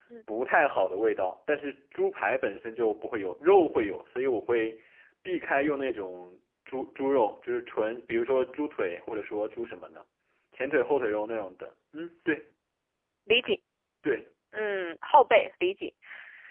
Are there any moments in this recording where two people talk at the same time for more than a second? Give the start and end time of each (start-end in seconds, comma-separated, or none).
none